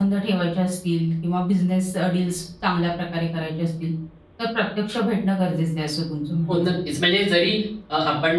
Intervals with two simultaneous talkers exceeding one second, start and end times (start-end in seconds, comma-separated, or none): none